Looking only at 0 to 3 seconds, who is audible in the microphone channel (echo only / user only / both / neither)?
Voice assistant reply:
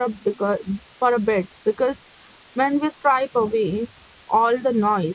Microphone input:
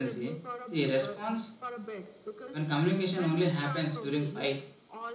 both